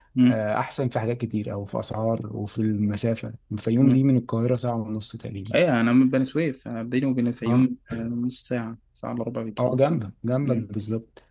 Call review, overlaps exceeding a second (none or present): none